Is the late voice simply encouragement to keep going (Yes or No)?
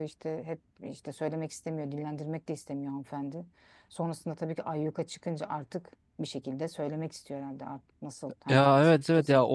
No